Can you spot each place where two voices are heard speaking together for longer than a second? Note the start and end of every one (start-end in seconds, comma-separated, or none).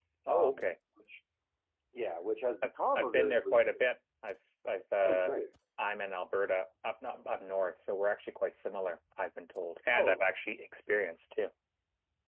2.6-3.8